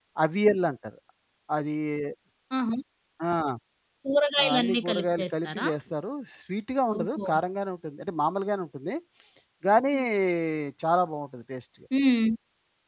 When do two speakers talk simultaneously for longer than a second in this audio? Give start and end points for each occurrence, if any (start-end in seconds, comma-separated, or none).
4.4-5.7